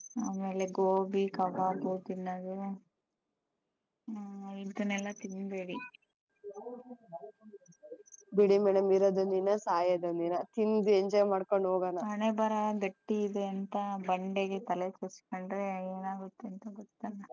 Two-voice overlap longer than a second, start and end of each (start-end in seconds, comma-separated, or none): none